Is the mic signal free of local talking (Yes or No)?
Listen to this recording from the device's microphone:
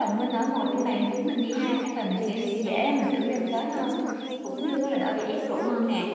No